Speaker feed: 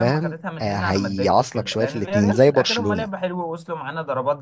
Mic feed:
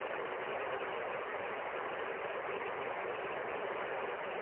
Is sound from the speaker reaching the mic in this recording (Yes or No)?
No